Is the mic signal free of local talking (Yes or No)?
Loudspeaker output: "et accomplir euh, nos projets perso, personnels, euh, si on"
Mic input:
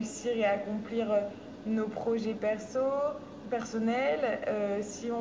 Yes